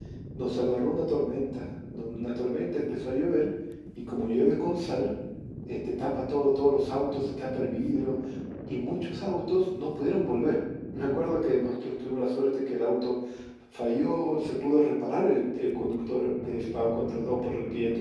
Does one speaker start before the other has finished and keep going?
No

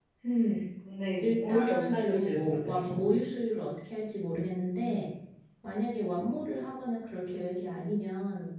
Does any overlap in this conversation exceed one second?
Yes, from 1.2 s

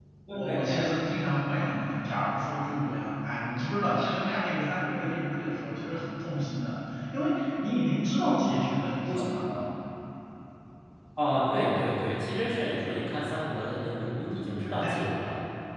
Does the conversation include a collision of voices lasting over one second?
No

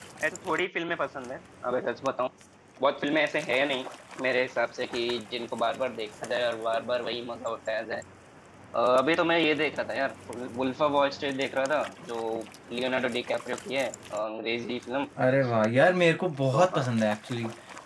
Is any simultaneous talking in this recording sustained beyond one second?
No

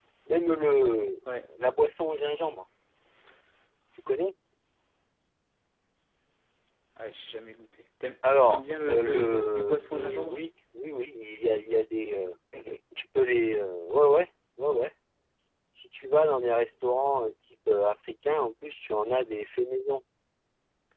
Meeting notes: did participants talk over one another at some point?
Yes, from 8.5 s

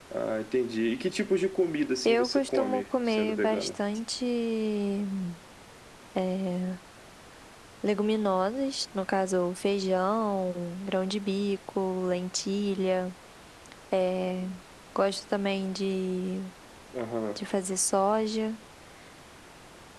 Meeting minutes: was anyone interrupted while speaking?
Yes, from 2.0 s

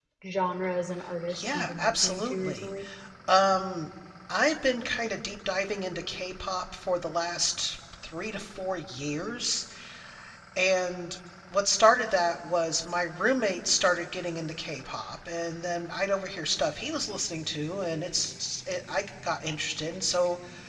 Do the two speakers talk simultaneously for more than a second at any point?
Yes, from 1.3 s

